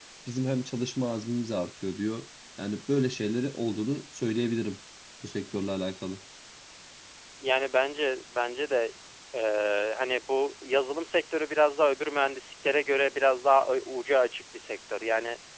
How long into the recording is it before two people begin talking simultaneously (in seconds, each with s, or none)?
none